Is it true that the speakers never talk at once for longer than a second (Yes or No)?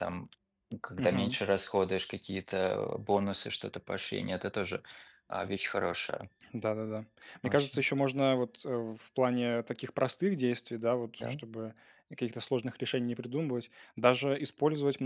Yes